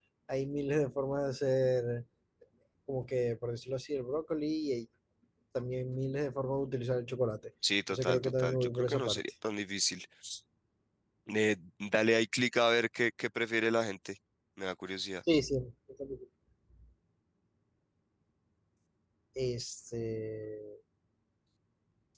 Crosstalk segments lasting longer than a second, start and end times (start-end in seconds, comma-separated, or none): 7.9-9.2